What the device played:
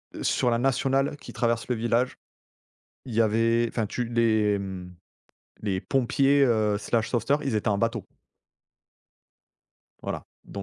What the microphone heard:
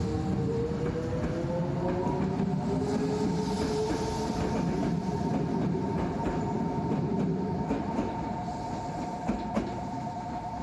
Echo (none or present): none